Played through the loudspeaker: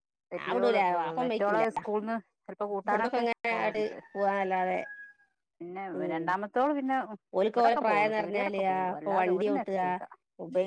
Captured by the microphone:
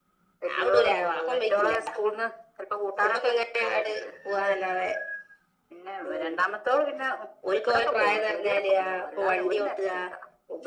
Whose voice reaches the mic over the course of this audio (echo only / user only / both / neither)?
echo only